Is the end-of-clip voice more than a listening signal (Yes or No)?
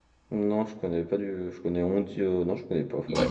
Yes